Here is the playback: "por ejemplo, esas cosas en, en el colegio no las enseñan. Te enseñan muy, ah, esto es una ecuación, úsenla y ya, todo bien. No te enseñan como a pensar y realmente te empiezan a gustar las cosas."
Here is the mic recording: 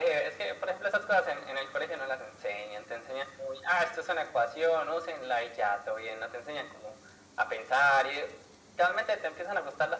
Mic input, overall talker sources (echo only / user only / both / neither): echo only